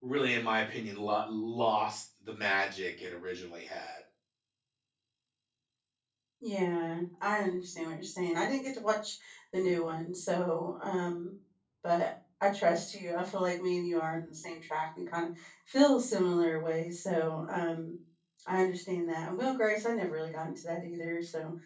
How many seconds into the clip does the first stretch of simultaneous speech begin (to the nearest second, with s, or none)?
none